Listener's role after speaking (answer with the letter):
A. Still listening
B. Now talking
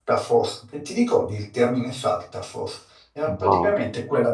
A